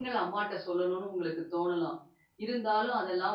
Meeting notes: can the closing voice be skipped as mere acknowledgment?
Yes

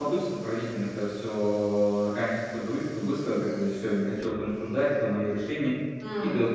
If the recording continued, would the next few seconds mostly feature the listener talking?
No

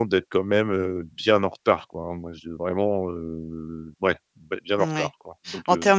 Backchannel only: No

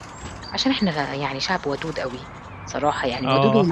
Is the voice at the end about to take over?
No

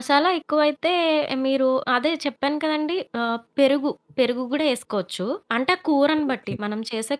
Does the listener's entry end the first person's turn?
No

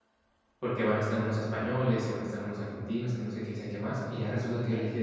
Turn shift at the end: No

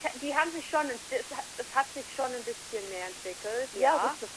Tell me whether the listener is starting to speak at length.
Yes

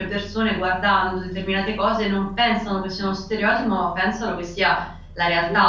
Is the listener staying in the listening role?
Yes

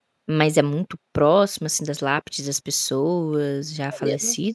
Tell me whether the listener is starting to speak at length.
Yes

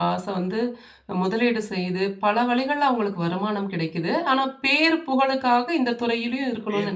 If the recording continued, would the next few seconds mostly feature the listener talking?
Yes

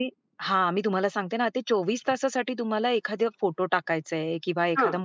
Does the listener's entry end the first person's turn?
No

